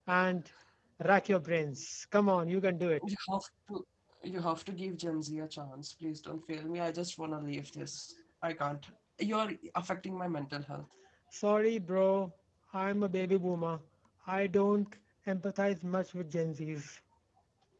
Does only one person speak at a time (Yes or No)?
Yes